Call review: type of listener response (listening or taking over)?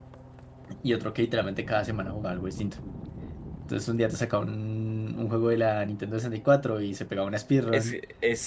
taking over